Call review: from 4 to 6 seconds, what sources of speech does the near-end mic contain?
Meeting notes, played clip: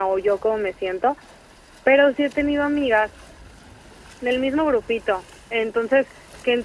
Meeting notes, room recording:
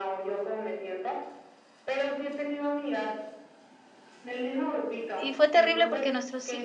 both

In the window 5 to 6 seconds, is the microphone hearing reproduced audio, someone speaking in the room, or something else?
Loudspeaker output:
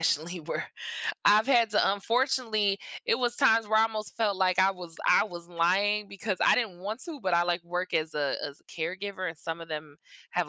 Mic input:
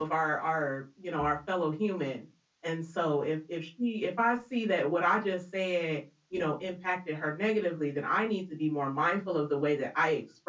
user only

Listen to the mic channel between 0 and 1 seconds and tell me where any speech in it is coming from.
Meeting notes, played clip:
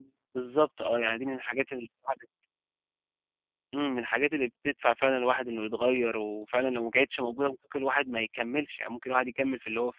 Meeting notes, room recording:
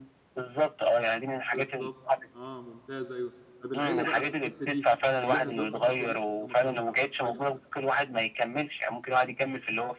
echo only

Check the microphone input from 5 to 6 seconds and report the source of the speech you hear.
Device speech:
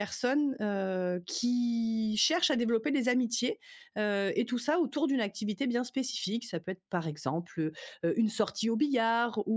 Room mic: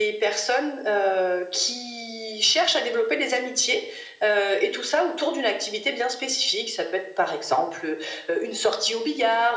echo only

